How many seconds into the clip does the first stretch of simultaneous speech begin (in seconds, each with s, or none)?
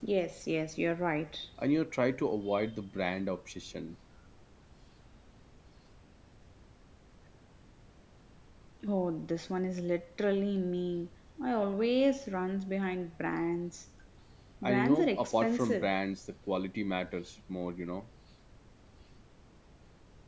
14.6 s